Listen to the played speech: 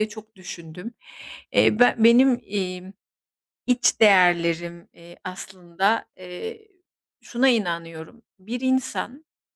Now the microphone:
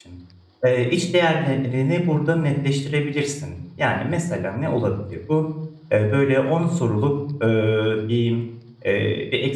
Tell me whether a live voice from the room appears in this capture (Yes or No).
Yes